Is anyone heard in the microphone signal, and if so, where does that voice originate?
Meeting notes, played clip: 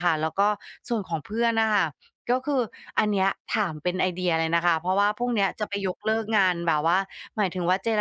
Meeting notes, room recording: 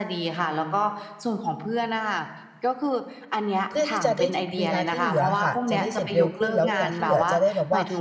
both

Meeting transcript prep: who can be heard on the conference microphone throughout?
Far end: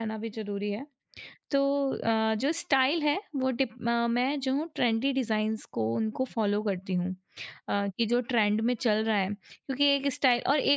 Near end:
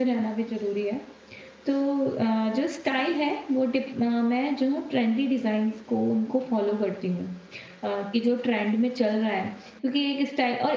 echo only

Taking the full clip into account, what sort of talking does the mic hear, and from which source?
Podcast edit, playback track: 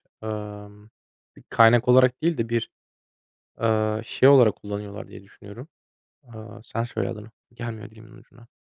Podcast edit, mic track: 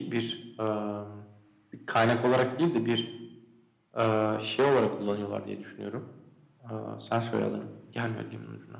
echo only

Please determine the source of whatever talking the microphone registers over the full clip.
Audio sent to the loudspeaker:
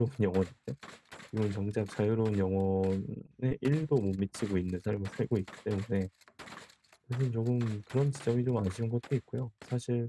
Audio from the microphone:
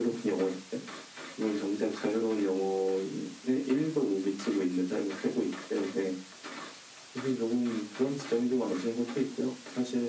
echo only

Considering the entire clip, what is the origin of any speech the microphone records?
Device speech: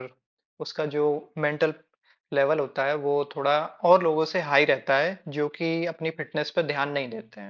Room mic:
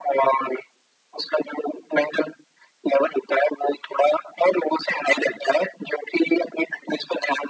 echo only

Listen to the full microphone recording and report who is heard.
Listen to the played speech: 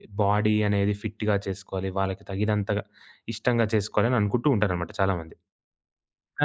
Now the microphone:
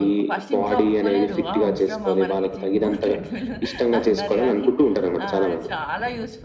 both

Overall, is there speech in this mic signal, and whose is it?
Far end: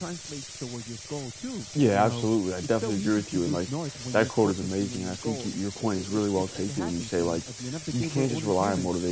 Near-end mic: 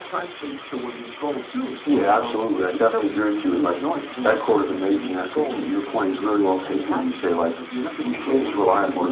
echo only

